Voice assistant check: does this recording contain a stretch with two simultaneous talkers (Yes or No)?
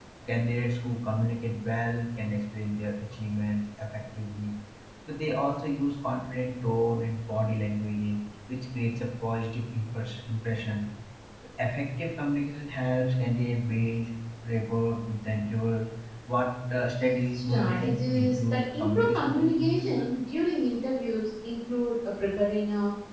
Yes